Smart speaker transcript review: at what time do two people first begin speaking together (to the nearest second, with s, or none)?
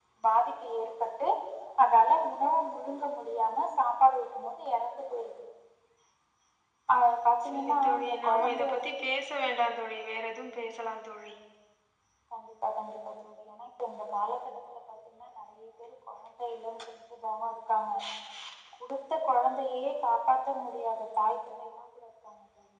8 s